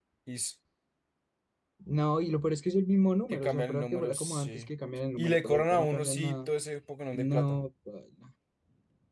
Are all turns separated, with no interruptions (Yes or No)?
No